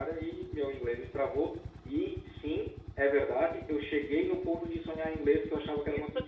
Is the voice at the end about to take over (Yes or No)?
Yes